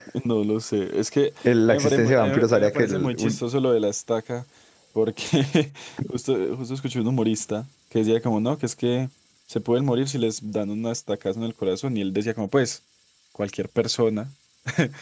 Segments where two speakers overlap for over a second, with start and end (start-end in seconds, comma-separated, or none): 1.7-3.4